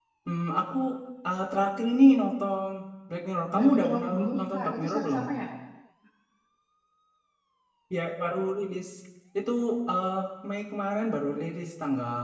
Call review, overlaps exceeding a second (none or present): present